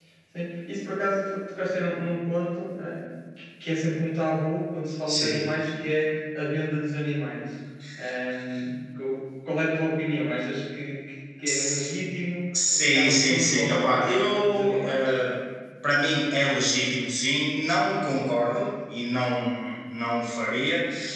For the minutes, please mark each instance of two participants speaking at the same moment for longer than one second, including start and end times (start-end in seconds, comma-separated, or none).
12.7-15.1